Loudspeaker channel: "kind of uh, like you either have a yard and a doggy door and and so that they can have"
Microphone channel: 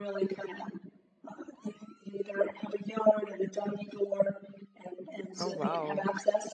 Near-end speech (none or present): present